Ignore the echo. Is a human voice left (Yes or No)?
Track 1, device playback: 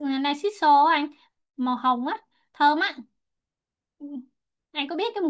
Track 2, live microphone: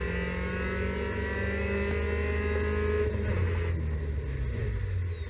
No